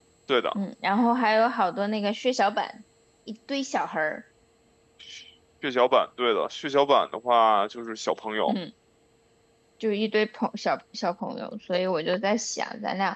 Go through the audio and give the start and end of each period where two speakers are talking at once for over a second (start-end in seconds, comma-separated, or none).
none